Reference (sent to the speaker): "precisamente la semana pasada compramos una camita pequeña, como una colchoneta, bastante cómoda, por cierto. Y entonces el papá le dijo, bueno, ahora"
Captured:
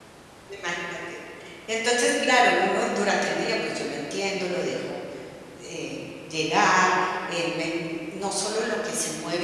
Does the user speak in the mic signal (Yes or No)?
Yes